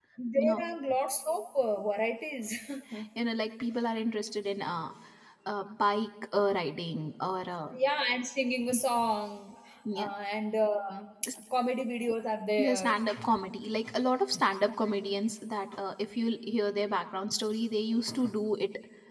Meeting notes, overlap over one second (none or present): none